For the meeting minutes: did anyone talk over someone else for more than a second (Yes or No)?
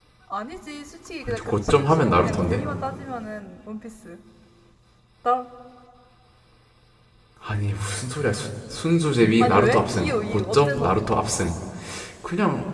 Yes